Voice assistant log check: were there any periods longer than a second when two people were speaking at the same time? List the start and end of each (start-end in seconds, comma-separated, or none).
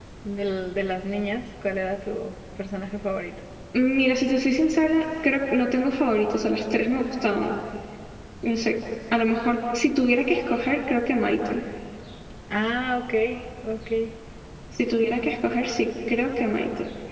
none